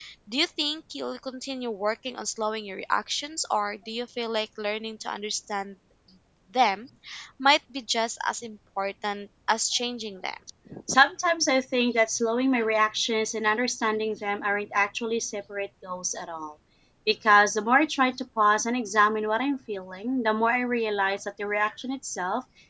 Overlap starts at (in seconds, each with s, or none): none